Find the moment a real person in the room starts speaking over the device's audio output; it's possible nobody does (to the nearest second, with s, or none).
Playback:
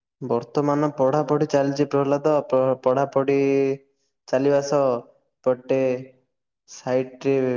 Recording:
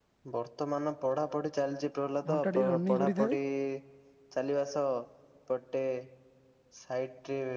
2 s